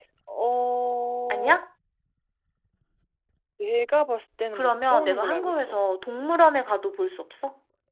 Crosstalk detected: Yes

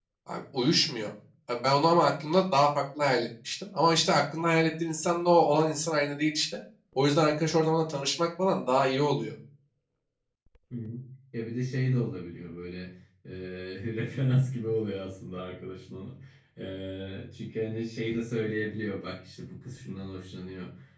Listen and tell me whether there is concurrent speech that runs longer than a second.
No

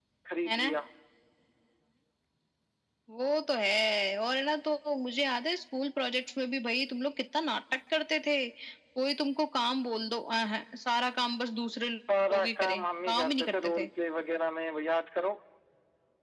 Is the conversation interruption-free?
No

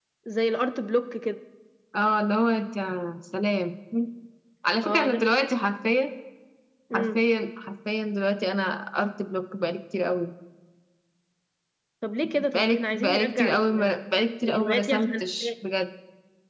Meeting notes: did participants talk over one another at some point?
Yes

